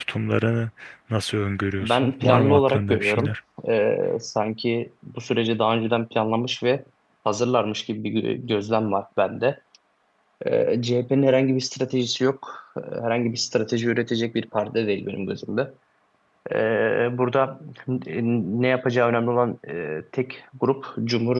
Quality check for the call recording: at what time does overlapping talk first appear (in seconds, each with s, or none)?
1.8 s